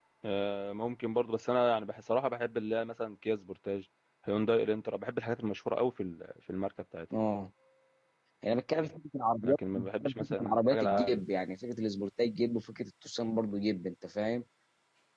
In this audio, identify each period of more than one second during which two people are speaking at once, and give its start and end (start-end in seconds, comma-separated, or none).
9.4-11.2